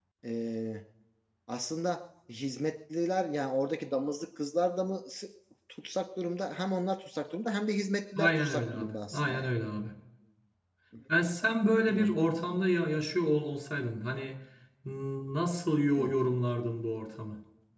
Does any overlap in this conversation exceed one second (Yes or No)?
Yes